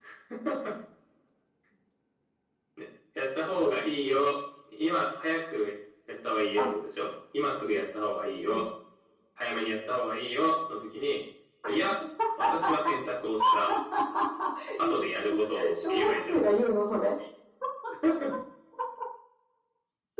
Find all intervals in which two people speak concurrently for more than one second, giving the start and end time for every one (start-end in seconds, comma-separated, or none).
14.8-16.4